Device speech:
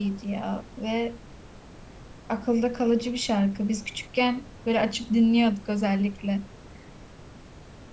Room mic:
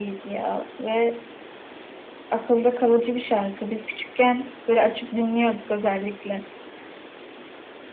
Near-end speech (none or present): none